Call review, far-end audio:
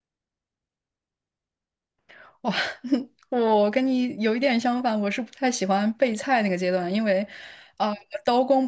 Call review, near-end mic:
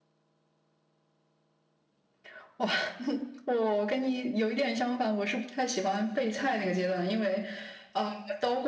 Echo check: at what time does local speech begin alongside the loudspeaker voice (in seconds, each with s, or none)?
none